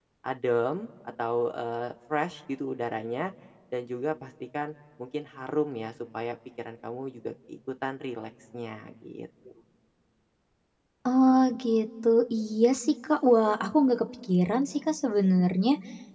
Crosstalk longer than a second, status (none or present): none